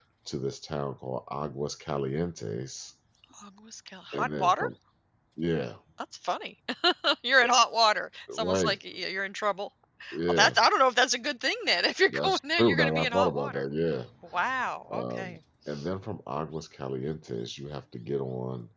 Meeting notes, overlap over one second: present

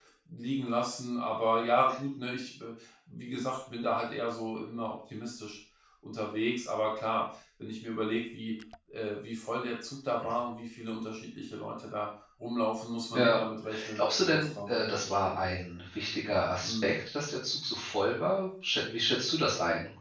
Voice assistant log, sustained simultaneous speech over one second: present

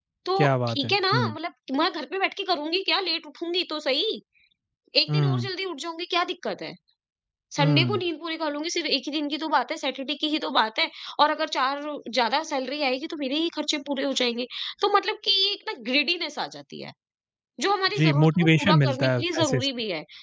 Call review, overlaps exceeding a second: present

